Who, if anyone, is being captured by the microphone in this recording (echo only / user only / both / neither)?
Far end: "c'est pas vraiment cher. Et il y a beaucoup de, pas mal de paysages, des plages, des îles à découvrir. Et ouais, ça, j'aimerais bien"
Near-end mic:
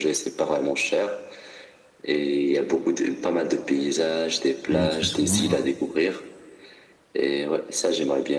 both